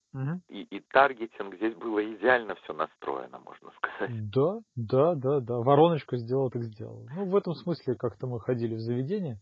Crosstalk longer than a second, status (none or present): none